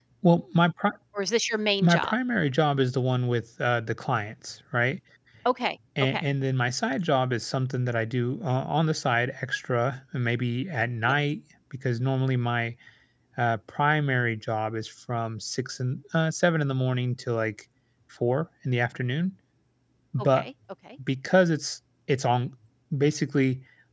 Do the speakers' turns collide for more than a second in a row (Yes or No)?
No